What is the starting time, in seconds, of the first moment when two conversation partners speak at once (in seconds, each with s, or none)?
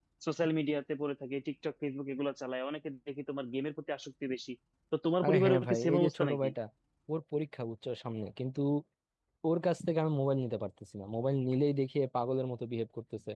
5.2 s